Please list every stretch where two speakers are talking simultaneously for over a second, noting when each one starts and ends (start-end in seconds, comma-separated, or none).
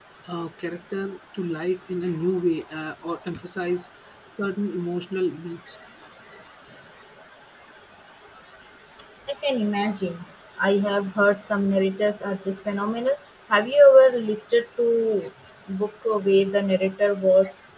none